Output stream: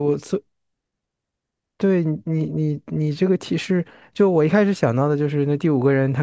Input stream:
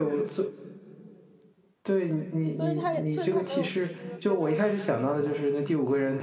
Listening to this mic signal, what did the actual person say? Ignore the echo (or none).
所以他也，所以他没有尸，别的人都尸。